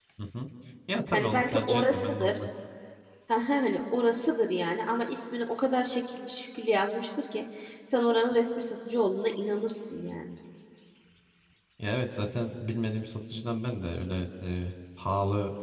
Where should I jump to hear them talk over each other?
1.1 s

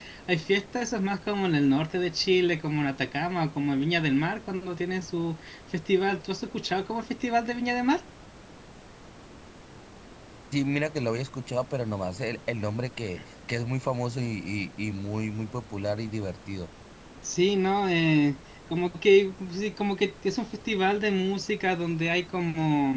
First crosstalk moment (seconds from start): none

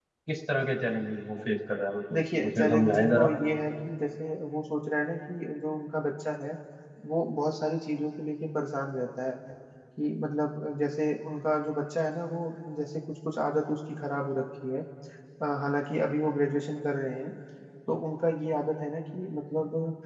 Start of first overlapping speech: 2.1 s

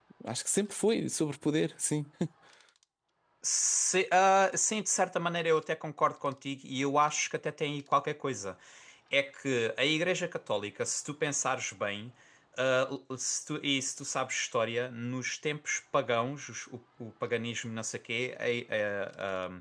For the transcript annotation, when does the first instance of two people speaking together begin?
none

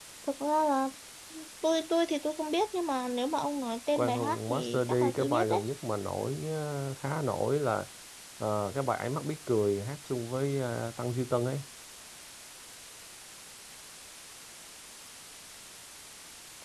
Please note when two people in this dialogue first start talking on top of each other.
4.0 s

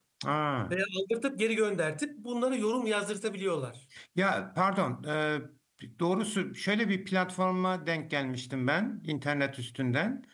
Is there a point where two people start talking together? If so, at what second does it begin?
none

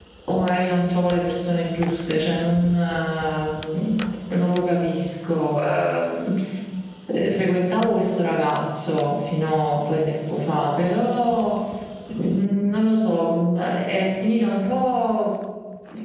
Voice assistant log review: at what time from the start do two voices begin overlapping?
none

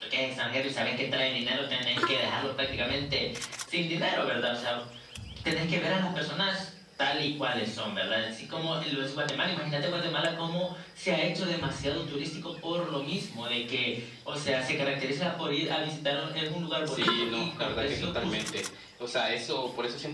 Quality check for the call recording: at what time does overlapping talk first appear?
16.9 s

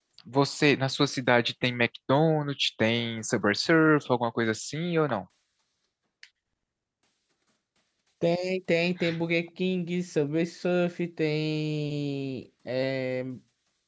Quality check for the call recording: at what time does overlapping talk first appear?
none

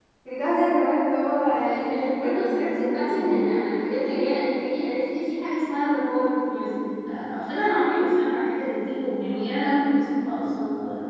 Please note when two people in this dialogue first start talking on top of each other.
1.5 s

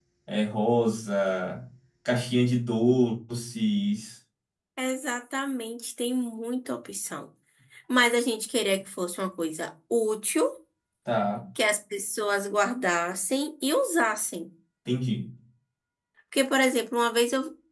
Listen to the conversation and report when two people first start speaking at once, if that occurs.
none

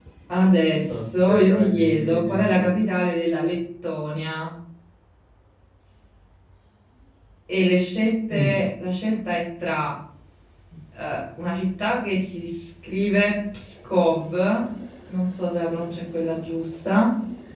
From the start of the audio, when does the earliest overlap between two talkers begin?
0.9 s

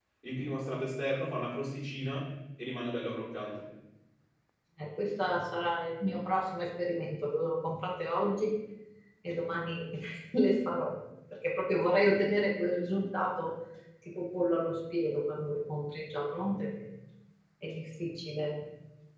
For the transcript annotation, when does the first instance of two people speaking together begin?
none

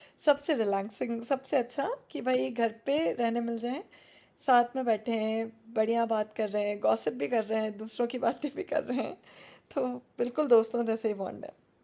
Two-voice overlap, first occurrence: none

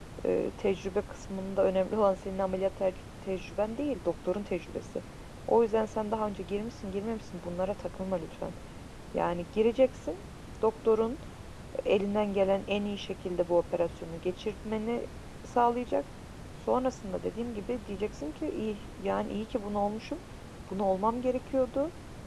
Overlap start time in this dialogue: none

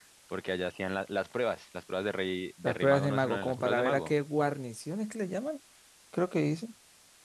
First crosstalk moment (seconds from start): 2.6 s

